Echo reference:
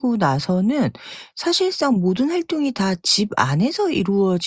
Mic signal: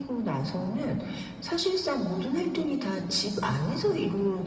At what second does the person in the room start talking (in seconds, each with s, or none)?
none